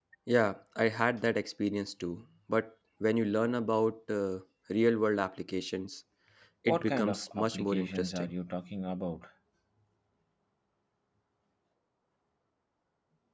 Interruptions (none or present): present